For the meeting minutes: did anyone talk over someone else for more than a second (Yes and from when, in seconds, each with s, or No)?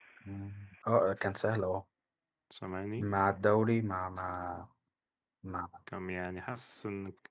No